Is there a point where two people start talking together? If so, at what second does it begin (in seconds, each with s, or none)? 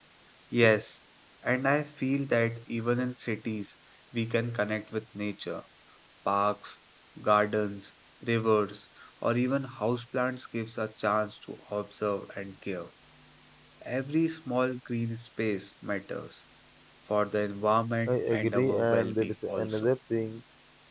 18.1 s